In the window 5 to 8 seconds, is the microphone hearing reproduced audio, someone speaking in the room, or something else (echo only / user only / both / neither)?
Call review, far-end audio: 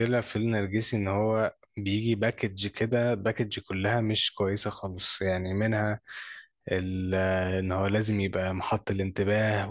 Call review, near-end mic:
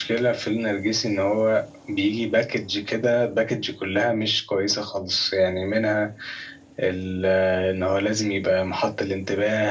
echo only